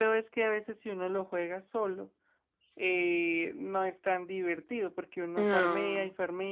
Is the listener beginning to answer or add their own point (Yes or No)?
No